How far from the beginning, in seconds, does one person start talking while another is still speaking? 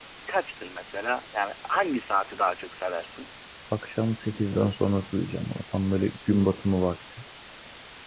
none

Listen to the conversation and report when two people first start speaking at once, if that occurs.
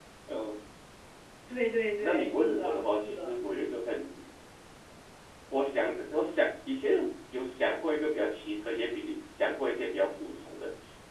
2.0 s

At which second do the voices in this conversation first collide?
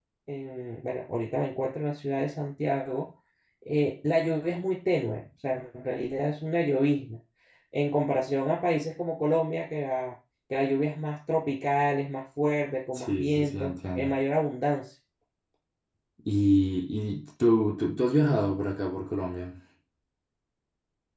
12.9 s

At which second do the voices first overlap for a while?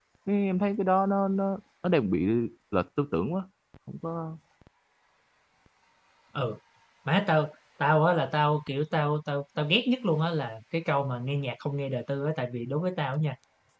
none

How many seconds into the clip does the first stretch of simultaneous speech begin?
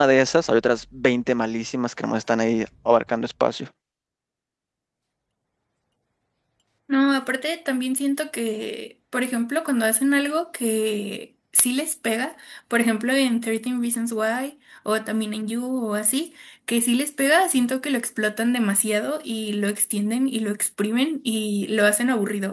none

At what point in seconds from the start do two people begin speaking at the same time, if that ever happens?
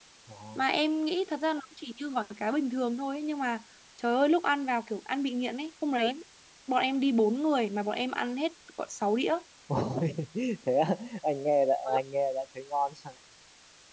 none

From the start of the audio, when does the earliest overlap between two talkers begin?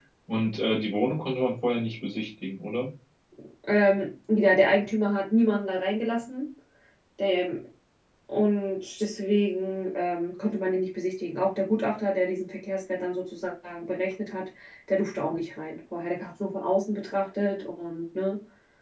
none

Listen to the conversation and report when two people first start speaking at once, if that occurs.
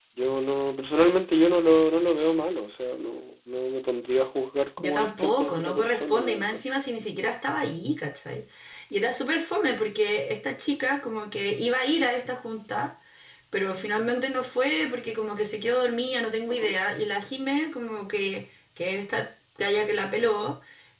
4.8 s

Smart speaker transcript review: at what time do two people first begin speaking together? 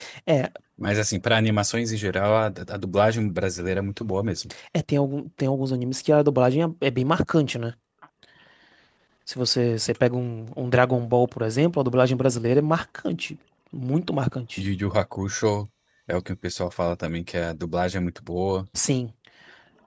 none

